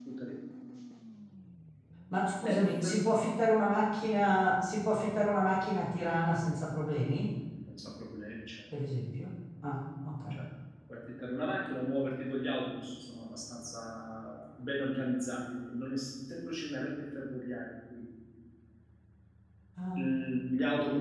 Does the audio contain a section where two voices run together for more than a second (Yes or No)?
No